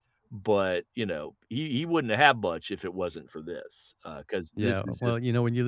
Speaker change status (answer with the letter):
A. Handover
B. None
A